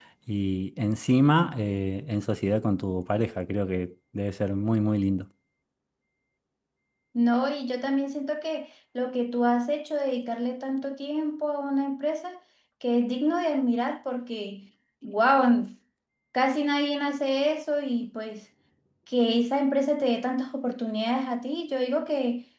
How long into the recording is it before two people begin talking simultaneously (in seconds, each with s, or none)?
none